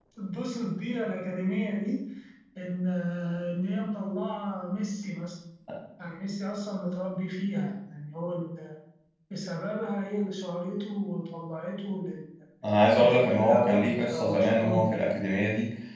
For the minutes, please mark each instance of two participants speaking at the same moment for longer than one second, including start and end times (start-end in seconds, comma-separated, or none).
13.0-14.9